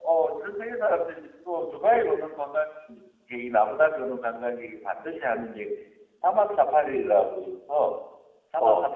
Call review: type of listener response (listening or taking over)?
listening